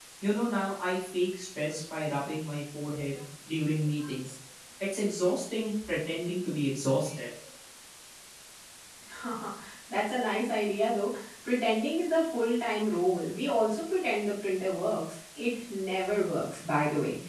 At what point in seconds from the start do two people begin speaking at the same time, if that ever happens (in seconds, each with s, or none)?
none